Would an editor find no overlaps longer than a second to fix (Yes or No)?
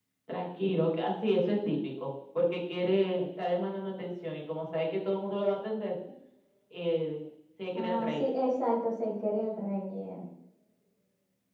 Yes